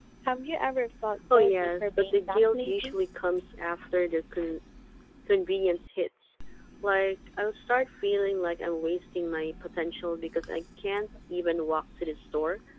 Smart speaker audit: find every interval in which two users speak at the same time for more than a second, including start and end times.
1.3-3.0

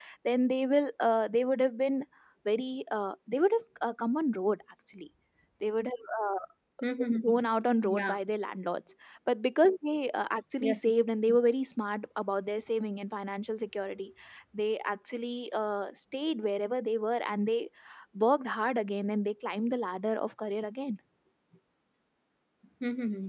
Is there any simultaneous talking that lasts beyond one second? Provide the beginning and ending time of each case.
none

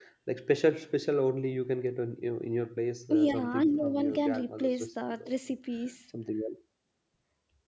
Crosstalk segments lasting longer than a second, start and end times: 3.1-5.3

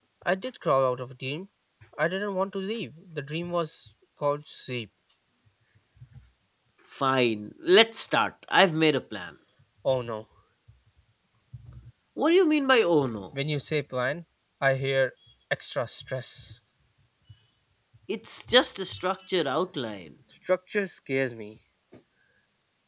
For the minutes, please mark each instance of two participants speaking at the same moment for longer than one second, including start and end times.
none

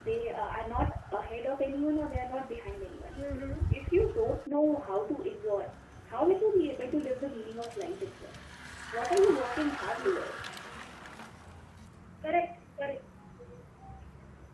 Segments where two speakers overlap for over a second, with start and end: none

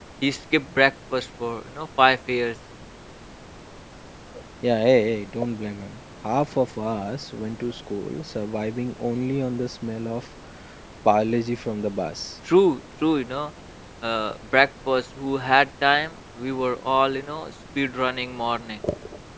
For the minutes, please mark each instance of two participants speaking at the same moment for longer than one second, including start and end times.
none

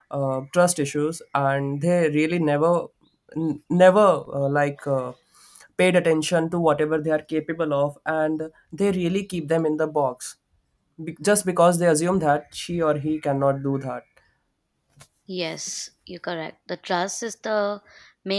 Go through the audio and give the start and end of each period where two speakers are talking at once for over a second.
none

